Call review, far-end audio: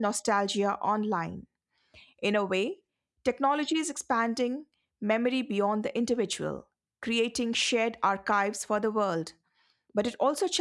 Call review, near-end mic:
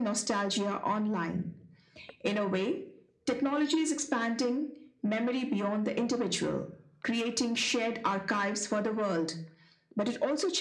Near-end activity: none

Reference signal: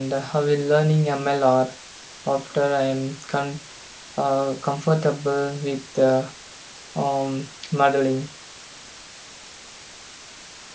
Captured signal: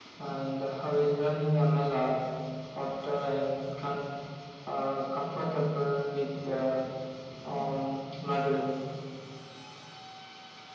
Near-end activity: none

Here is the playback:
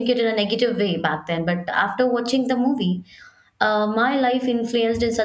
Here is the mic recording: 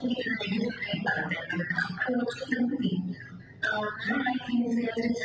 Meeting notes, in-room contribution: none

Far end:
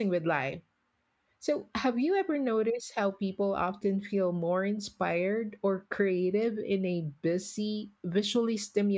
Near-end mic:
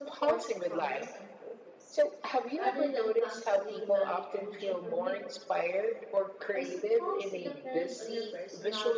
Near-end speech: present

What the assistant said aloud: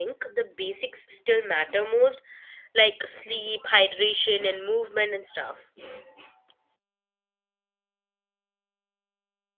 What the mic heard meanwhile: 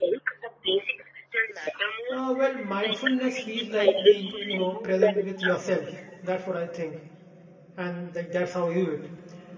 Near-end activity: present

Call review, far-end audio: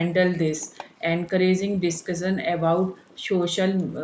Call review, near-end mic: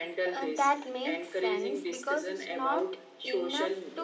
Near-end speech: present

